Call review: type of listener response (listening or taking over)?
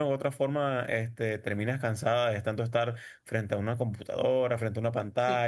taking over